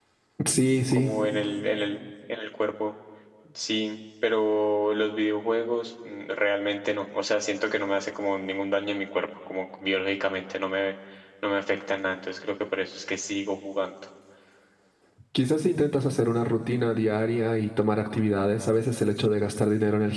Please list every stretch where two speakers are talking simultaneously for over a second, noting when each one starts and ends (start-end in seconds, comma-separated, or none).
none